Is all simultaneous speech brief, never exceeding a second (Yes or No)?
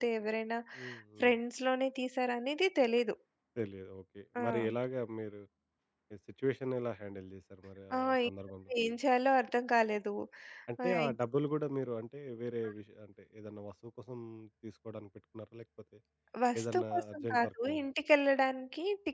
No